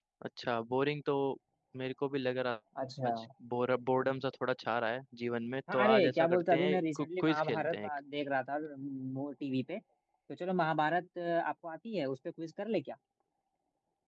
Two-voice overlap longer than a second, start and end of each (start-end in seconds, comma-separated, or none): 5.7-7.9